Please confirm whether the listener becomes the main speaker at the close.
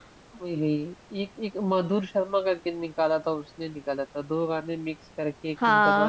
Yes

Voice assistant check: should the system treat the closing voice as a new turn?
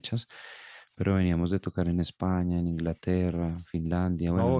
Yes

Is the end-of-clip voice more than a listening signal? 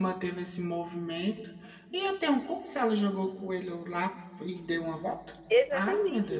Yes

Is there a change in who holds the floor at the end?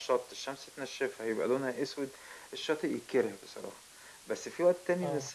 No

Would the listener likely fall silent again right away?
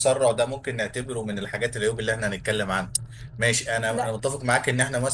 Yes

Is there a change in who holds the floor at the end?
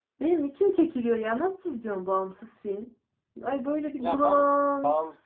Yes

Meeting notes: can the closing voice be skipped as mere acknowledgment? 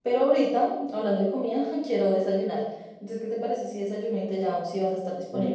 No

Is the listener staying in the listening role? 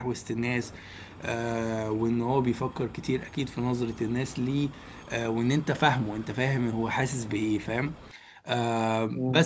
No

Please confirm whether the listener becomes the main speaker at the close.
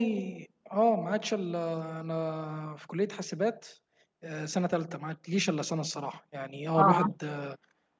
No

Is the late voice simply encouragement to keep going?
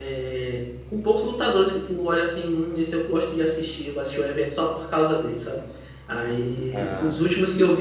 Yes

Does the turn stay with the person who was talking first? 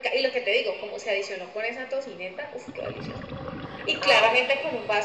Yes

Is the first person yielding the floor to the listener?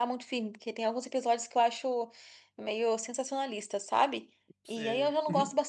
No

